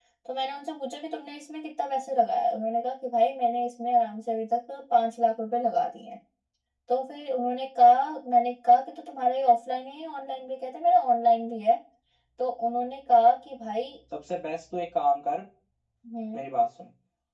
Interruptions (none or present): none